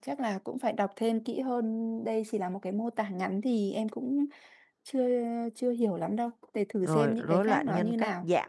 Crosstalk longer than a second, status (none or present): present